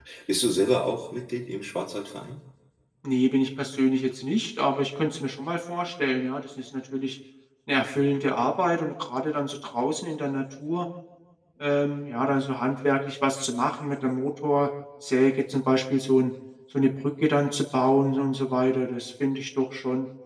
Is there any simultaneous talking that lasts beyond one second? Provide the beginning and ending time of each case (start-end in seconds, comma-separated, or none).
none